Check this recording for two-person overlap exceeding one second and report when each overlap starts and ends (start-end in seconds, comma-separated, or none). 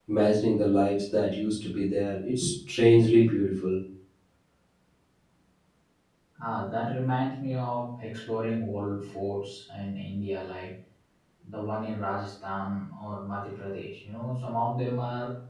none